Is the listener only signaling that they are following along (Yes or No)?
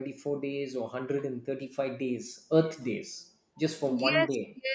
No